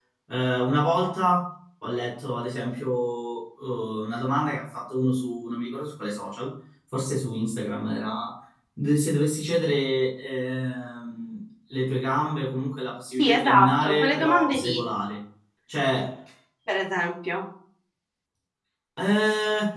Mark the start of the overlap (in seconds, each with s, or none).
13.2 s